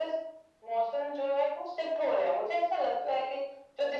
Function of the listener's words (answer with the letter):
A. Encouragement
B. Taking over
A